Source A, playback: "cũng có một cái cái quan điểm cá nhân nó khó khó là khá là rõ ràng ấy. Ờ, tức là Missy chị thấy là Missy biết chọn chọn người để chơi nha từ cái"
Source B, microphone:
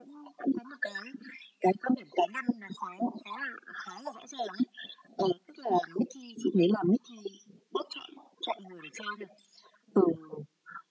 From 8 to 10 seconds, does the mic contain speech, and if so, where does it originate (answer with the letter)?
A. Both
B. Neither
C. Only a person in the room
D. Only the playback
D